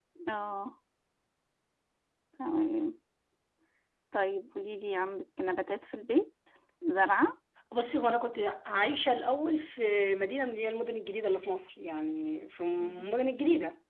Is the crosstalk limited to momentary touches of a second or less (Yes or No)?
Yes